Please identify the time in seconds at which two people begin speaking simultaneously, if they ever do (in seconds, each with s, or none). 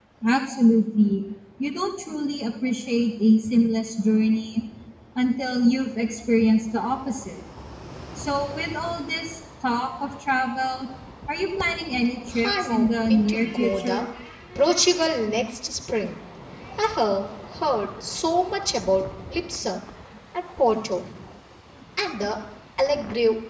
12.3 s